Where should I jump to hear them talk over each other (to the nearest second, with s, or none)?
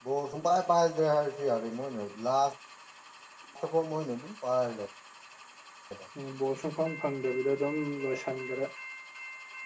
none